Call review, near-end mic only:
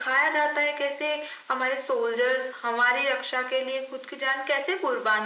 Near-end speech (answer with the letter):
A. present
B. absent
B